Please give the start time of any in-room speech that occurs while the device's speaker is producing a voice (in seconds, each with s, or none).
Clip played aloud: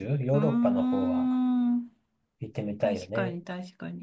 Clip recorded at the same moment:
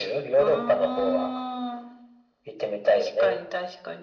none